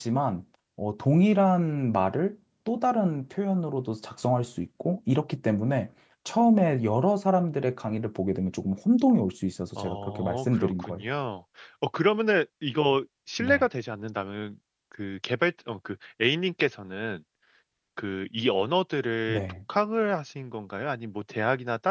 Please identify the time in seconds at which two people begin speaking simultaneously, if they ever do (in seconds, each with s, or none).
9.8 s